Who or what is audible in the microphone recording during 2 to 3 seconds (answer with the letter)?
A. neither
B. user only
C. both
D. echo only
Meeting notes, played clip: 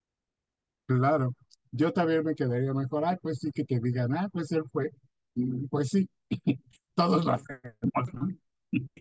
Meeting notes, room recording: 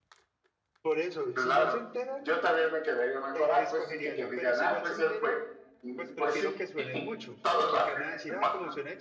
C